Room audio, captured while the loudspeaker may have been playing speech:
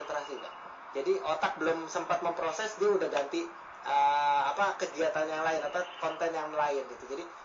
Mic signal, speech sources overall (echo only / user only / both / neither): echo only